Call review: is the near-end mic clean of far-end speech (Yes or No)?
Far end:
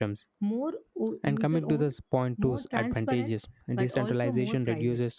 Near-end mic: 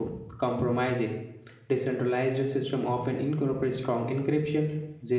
Yes